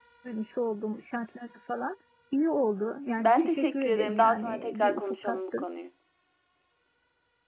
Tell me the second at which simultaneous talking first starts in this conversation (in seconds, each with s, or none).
3.2 s